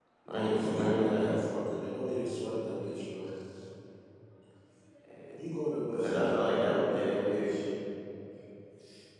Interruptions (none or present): present